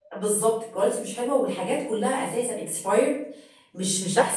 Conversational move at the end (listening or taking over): taking over